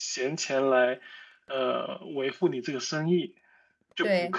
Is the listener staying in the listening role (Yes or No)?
No